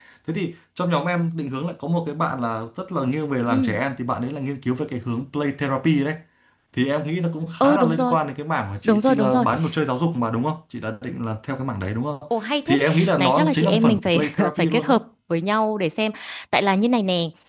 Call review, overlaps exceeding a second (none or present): present